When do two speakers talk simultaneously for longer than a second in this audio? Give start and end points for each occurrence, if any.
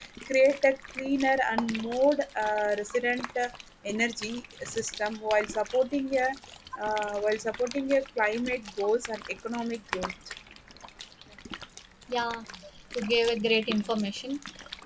none

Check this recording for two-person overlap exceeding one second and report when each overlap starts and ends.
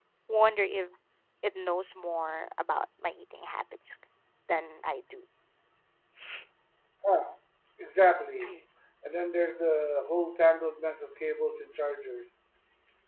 none

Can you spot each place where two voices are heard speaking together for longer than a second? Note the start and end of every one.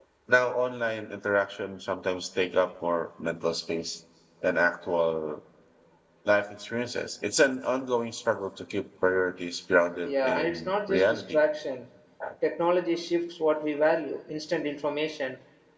10.0-11.4

